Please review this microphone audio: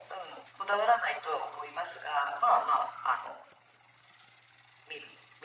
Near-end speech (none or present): none